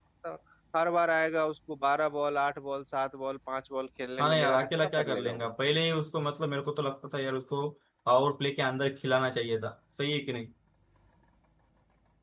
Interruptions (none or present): present